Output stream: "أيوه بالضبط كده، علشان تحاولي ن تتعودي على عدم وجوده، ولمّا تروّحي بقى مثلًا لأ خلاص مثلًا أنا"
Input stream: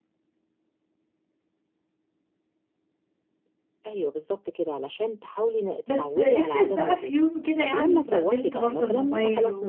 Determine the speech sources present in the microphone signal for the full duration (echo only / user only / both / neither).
both